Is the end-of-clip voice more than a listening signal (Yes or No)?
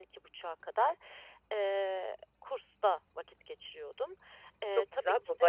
Yes